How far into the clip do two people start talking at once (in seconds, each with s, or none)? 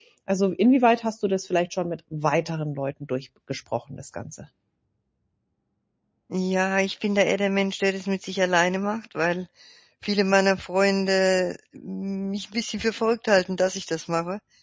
none